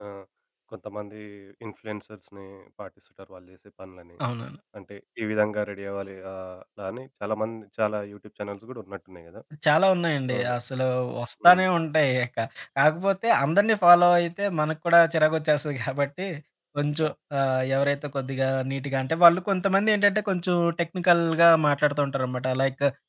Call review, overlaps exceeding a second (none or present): none